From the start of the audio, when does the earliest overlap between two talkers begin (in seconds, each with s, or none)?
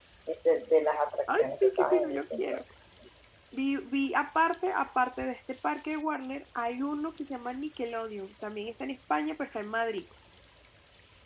1.3 s